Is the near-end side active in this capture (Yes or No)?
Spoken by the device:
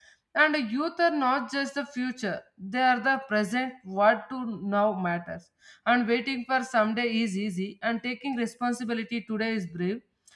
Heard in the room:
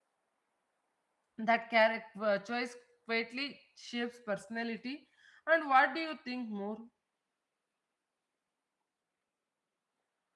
Yes